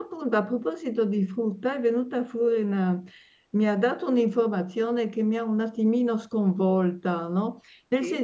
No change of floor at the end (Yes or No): Yes